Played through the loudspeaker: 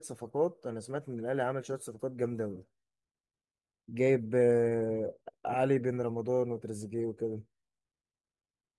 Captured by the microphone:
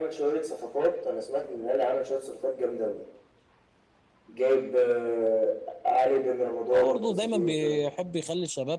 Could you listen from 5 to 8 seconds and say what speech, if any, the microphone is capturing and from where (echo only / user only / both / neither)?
both